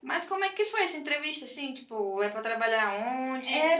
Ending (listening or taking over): taking over